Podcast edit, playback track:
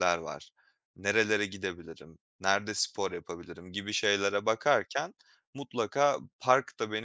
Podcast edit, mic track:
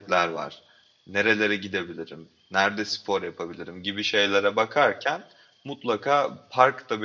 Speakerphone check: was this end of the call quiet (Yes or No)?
Yes